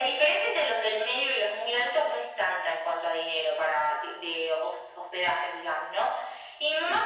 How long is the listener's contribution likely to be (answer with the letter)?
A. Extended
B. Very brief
B